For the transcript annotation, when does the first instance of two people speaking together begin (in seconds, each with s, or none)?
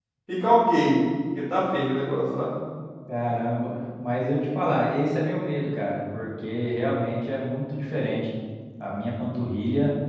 none